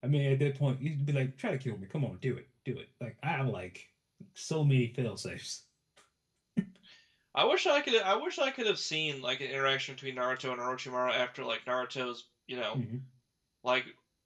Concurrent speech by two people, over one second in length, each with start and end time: none

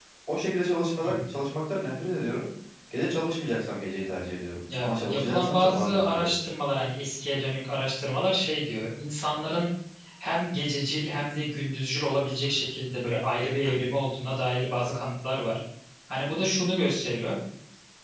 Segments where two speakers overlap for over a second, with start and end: 4.8-6.3

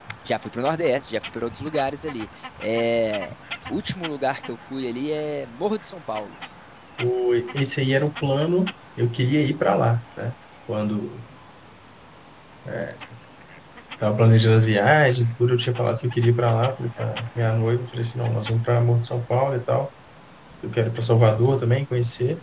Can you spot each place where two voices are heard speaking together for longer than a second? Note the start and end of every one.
none

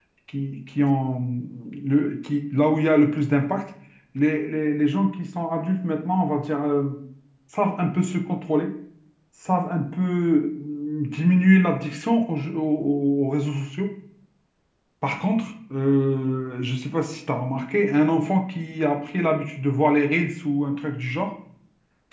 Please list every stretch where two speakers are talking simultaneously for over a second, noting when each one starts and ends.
none

